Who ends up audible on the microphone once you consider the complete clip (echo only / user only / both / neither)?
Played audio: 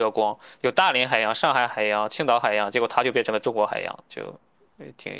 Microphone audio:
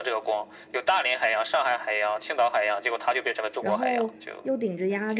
both